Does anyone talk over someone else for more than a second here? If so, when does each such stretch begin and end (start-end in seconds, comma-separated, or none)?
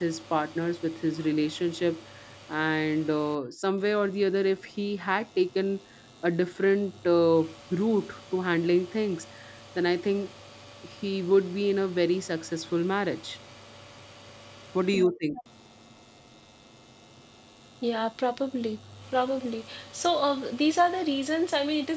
none